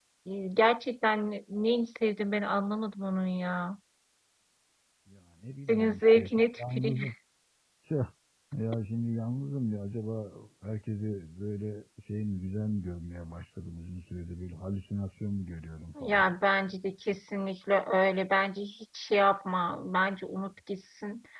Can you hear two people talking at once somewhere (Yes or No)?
Yes